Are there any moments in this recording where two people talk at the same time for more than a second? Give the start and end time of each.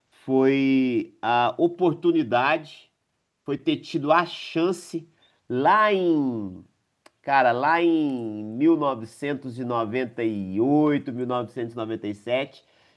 none

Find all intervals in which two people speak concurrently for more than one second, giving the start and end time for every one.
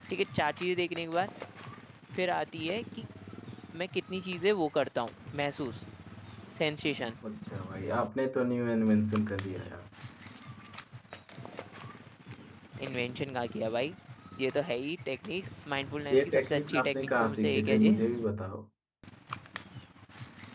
16.1-18.0

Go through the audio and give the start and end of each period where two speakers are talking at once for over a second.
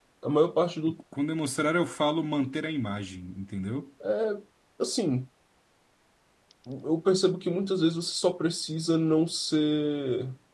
none

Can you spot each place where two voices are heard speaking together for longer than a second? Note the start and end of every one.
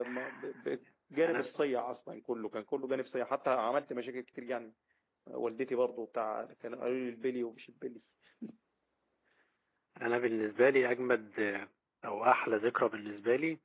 none

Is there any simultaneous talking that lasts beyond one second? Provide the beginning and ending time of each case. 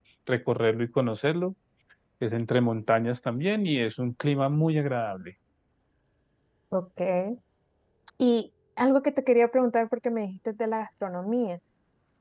none

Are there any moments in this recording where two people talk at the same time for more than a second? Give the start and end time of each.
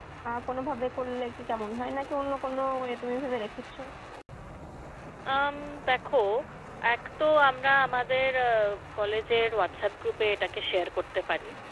none

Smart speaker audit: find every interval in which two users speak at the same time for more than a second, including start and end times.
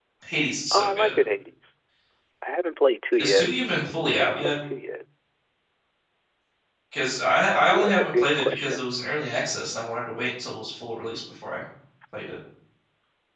7.7-8.9

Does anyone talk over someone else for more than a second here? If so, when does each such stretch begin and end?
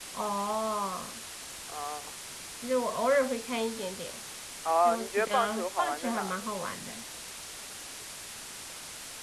4.8-6.5

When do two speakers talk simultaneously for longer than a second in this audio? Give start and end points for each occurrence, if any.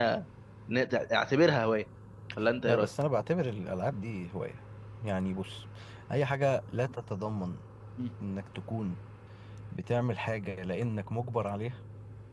none

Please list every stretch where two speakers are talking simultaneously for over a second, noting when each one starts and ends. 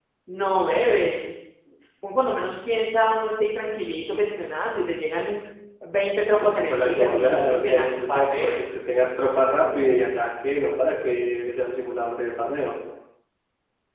6.4-8.6

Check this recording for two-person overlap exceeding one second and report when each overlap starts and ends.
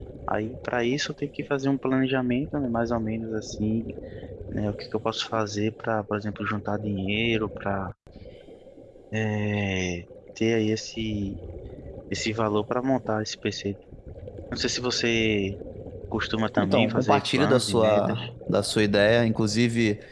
16.6-18.2

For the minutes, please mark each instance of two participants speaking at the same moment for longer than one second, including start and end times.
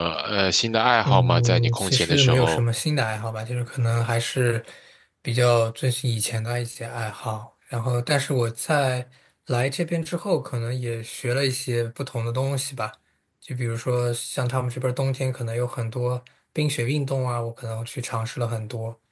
1.0-2.6

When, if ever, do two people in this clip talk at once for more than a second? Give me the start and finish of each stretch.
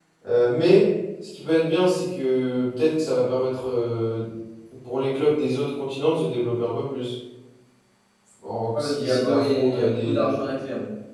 8.7-10.2

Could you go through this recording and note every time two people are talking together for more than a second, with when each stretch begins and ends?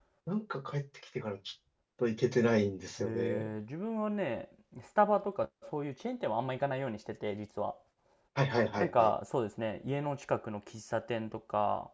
none

